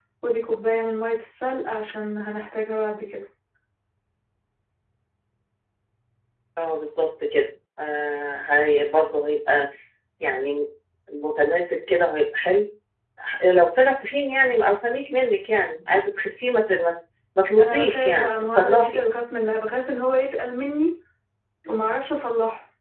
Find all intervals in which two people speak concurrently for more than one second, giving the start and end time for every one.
17.6-19.0

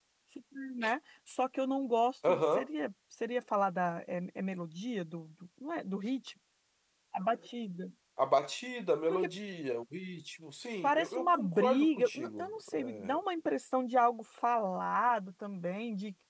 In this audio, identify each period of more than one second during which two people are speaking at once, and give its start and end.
10.8-13.2

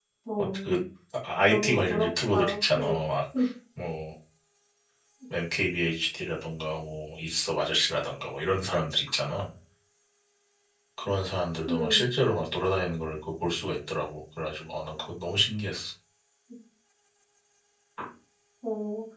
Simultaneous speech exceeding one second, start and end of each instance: 1.5-2.9

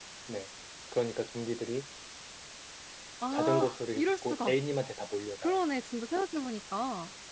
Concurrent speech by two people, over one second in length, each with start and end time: 3.3-4.5

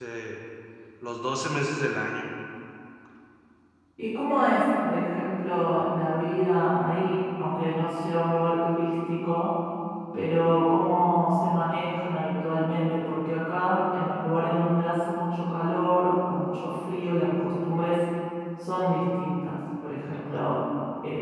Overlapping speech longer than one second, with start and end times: none

